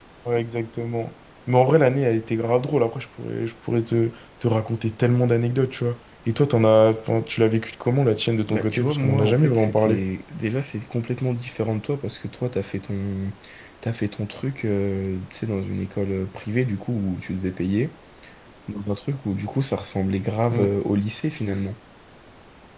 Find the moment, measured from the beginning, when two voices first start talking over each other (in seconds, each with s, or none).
8.5 s